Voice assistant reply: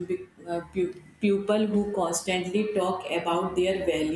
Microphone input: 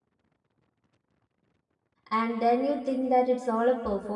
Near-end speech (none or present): present